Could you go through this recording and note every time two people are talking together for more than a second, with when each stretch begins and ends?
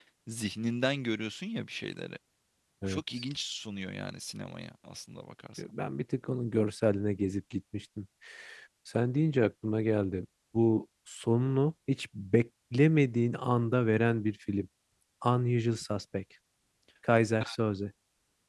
none

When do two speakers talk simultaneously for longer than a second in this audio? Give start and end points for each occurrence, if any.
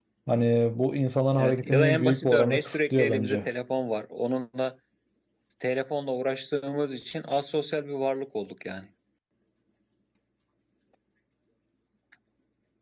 1.4-3.5

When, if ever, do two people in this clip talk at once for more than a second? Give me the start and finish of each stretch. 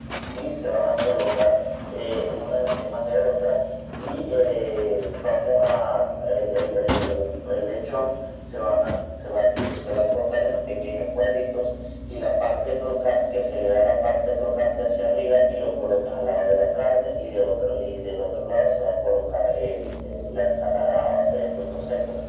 none

